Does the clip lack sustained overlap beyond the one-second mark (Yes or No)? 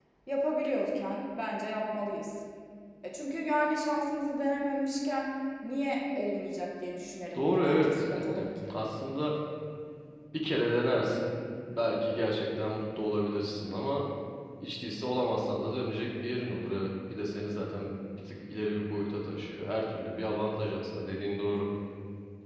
No